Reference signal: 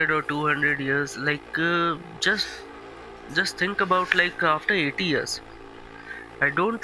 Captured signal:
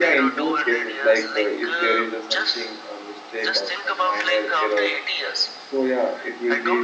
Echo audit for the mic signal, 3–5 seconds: both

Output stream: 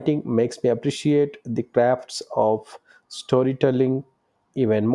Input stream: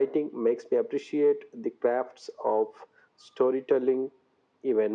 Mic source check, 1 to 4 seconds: echo only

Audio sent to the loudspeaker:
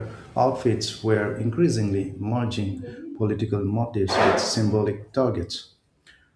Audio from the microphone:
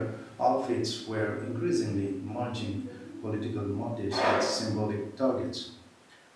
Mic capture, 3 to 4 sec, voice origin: echo only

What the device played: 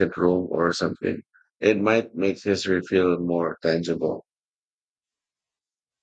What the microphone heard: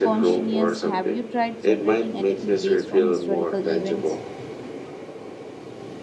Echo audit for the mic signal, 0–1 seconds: both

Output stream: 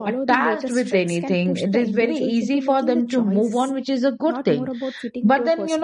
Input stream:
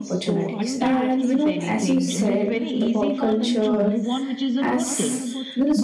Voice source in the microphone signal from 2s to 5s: both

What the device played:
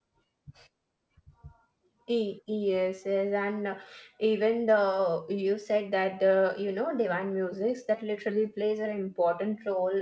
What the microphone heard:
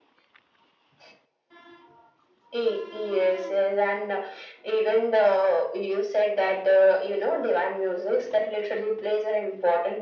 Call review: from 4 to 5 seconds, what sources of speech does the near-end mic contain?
echo only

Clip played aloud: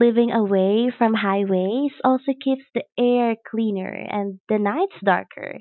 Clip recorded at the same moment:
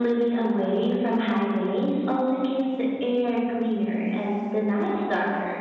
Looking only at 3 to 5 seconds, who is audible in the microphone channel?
echo only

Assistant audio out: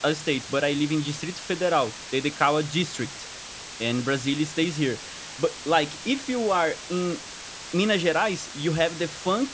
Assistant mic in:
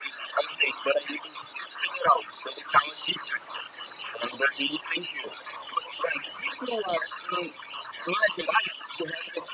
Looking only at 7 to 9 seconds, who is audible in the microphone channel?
echo only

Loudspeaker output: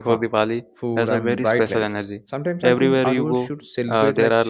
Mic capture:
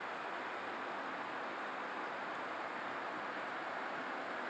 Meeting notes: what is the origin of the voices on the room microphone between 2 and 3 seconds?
neither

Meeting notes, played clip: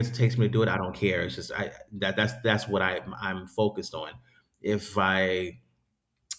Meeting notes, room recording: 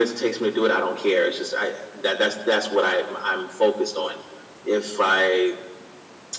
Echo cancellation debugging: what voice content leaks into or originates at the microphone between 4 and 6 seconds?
echo only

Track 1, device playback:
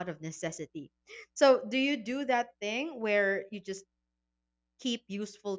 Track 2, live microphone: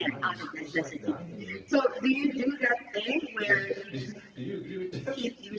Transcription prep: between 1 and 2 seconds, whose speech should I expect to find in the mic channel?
both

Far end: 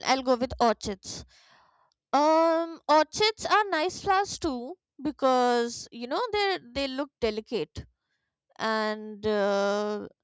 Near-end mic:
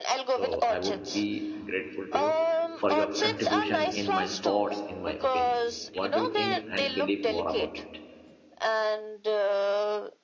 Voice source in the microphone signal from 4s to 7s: both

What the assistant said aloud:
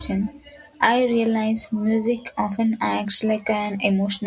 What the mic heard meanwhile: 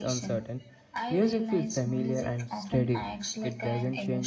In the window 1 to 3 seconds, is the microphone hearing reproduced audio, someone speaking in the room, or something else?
both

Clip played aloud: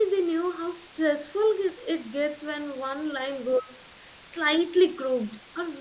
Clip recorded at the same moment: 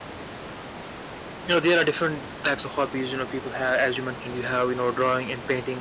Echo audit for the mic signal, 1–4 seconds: user only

